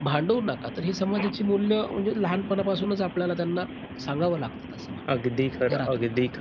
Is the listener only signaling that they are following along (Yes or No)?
No